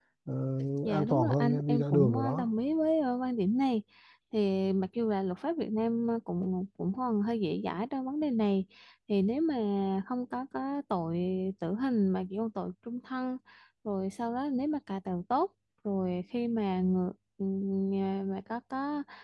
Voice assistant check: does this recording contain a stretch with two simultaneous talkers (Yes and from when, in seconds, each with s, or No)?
Yes, from 0.8 s